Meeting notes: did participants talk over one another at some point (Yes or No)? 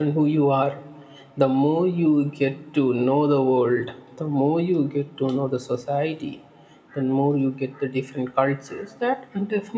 No